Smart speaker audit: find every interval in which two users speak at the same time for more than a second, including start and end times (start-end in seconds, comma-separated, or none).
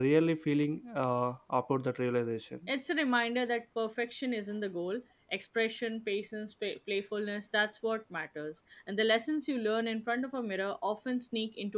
none